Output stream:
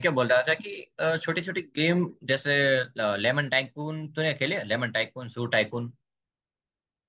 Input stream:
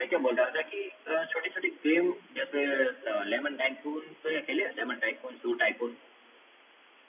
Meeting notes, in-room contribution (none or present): none